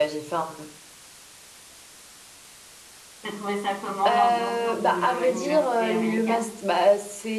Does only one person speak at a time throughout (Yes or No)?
No